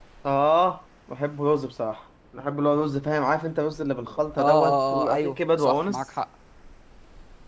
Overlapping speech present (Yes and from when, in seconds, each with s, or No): Yes, from 4.3 s